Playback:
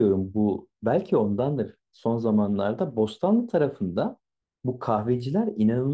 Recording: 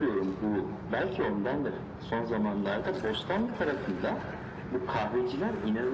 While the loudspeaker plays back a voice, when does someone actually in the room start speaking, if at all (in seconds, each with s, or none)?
none